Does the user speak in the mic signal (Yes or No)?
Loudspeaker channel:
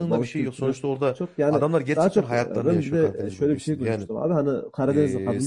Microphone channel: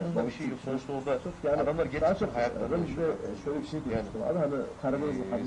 No